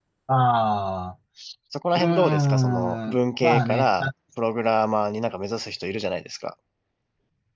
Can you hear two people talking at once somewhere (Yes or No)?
Yes